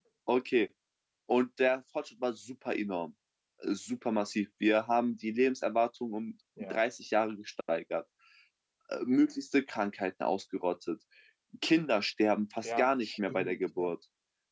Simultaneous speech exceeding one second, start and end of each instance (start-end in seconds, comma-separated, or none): 12.6-13.9